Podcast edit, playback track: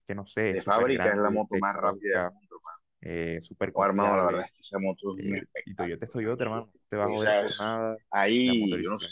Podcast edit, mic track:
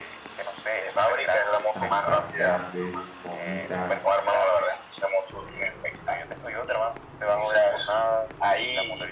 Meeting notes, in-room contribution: present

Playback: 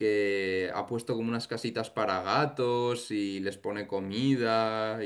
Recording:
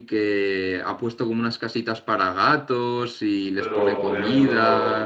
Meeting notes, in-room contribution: present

